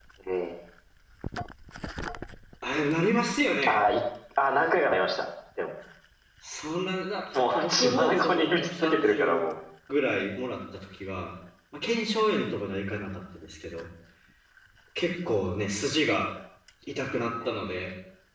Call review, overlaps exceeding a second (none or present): present